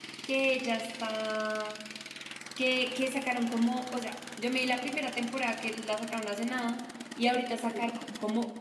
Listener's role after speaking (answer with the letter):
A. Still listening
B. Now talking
A